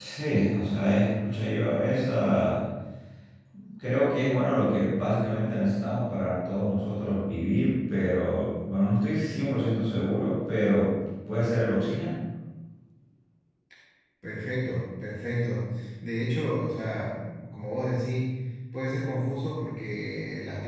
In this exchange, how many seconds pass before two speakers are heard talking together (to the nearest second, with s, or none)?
none